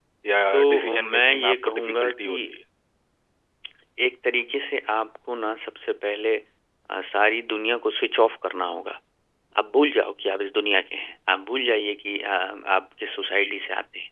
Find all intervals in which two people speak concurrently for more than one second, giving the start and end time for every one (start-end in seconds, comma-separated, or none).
0.5-2.4